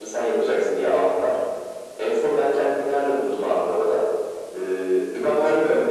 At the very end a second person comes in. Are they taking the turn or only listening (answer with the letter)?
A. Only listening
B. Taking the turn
A